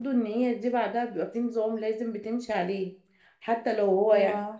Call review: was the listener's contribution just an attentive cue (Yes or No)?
Yes